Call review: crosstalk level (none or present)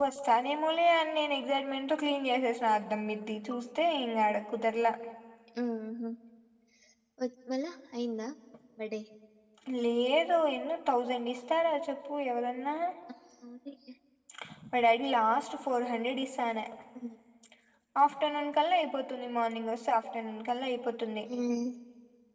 none